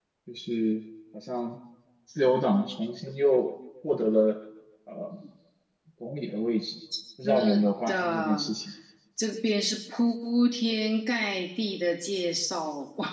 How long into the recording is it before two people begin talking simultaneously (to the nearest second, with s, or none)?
7 s